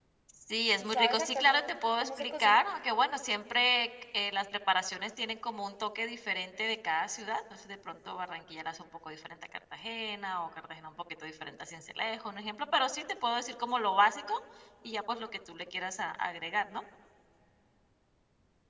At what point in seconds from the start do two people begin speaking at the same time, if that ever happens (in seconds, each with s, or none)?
0.8 s